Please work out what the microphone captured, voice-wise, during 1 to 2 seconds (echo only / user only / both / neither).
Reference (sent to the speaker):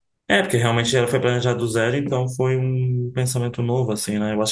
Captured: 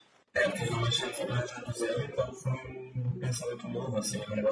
echo only